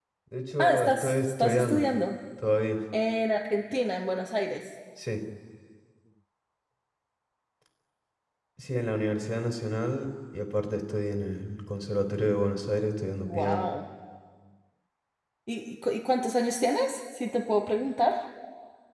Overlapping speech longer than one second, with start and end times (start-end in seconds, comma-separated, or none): 0.6-1.9